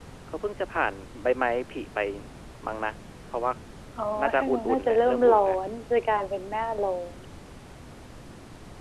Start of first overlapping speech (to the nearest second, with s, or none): 4 s